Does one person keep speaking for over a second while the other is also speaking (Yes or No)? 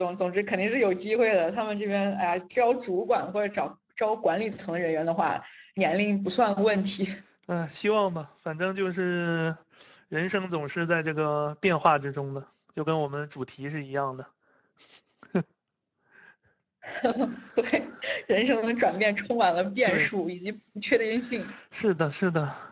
No